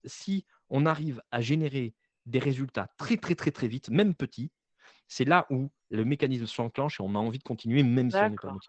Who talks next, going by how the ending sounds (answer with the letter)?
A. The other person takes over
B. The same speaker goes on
A